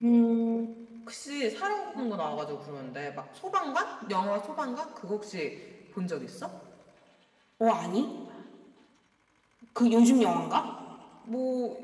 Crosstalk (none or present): none